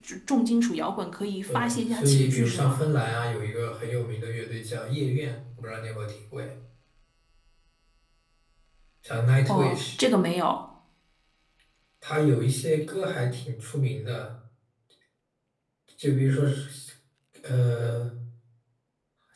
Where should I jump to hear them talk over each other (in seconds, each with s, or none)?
1.5 s